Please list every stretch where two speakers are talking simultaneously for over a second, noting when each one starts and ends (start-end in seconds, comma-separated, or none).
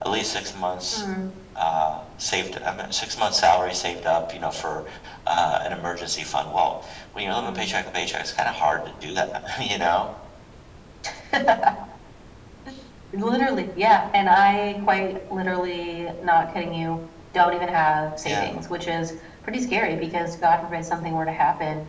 none